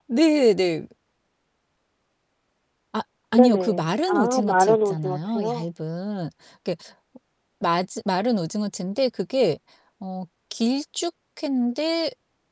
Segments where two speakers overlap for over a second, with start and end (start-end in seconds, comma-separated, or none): 3.4-5.6